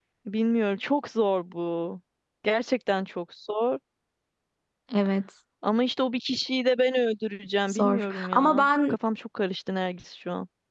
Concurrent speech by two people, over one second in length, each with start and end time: 7.7-9.0

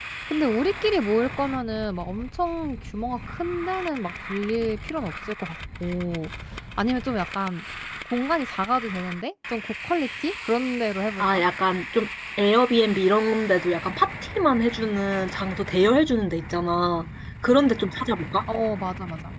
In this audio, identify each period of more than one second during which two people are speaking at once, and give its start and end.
none

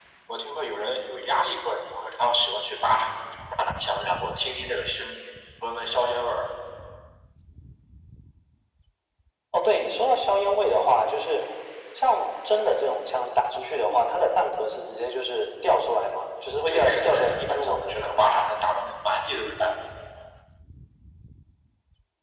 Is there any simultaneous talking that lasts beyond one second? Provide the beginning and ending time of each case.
16.7-18.4

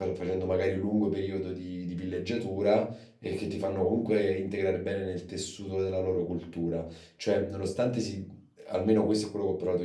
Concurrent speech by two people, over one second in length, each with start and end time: none

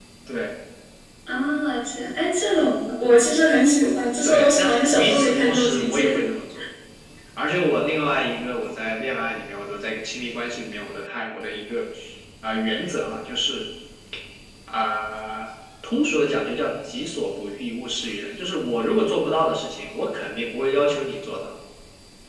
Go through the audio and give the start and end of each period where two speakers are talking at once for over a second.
4.2-6.0

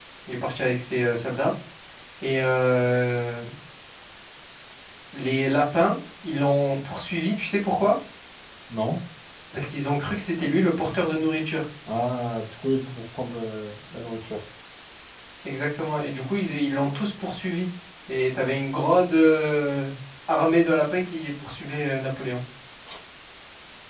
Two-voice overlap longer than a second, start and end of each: none

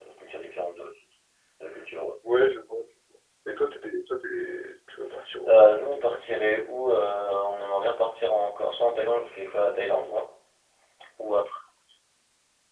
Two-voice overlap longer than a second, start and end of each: 5.5-6.7

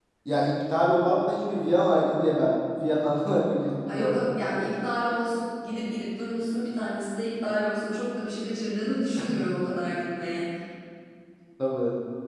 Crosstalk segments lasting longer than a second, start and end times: none

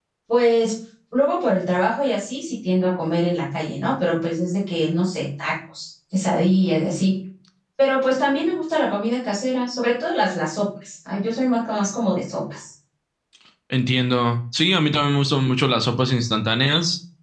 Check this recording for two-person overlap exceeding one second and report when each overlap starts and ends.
none

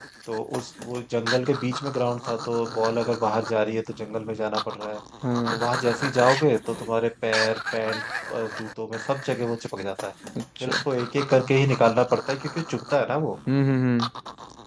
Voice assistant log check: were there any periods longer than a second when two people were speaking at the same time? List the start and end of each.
none

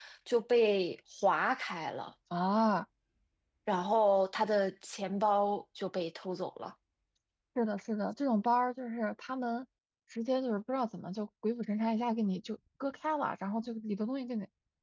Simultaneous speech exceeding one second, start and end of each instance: none

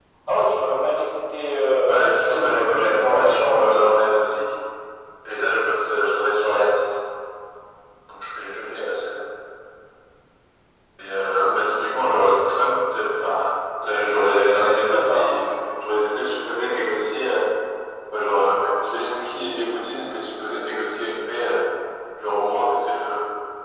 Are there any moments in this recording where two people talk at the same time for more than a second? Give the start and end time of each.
1.9-3.9, 13.9-15.4

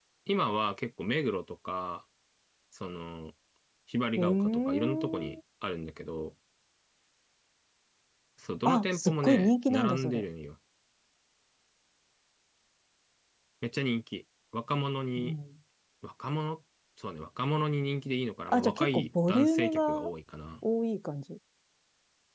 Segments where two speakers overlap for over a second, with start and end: 4.2-5.4, 8.6-10.2, 18.5-20.1

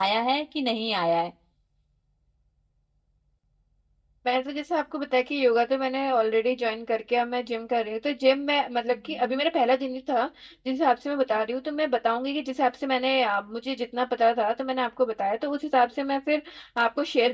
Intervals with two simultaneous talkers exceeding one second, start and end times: none

